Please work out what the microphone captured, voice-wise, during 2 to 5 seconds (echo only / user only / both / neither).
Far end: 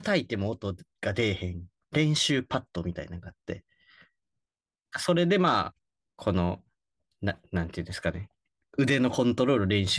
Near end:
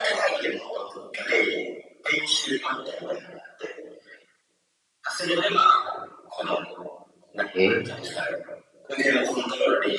echo only